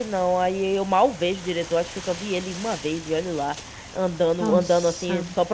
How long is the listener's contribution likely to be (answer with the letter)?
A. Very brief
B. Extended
A